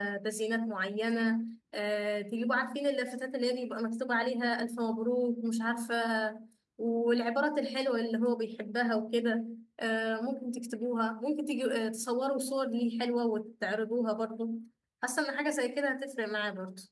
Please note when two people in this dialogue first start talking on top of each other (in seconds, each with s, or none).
none